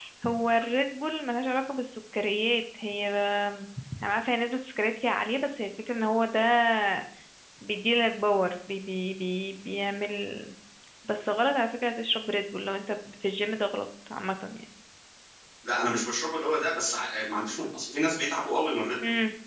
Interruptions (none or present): none